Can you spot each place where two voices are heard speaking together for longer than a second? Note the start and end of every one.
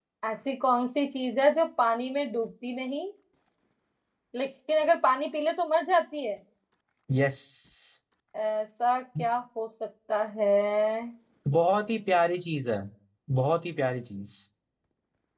none

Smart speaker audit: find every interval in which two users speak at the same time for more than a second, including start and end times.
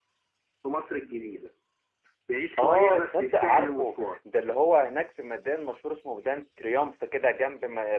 2.6-4.2

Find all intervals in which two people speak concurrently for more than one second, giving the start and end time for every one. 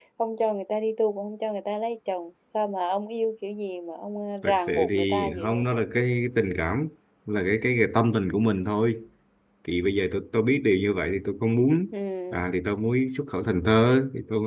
4.4-5.8

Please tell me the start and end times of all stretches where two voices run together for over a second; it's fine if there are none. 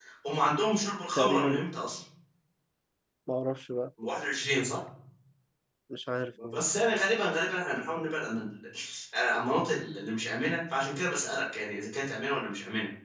none

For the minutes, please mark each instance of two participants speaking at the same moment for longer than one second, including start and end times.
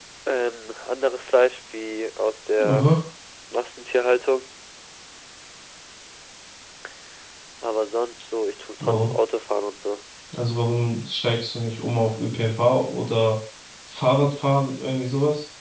none

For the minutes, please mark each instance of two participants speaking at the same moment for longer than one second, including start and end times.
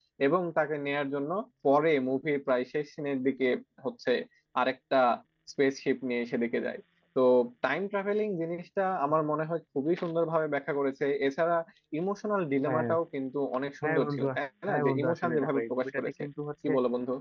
14.7-16.1

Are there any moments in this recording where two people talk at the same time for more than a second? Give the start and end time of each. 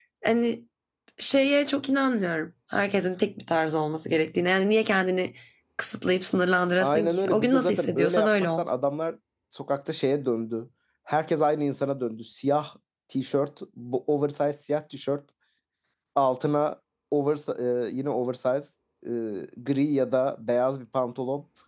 6.8-8.6

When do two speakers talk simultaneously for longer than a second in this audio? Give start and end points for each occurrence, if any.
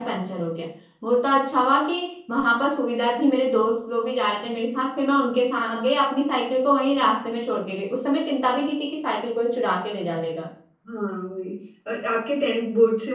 none

